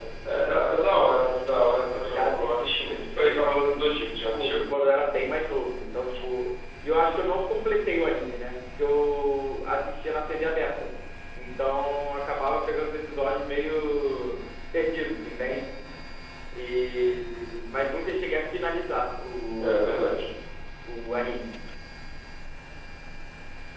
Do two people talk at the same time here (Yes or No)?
Yes